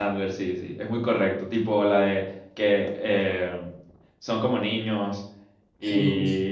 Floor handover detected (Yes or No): No